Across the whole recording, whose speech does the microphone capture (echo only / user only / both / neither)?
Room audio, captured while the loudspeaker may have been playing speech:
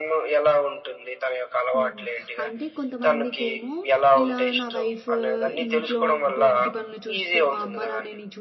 both